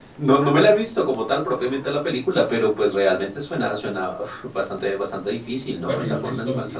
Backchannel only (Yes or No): No